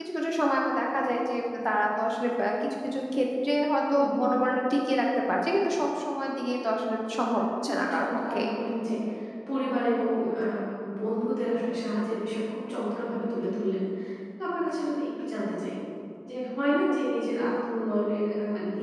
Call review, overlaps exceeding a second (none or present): present